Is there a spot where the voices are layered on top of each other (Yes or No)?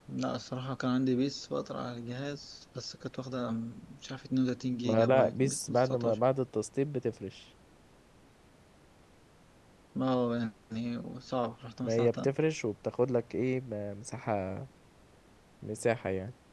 Yes